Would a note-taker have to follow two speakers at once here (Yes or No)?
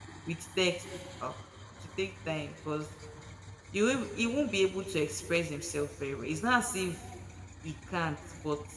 No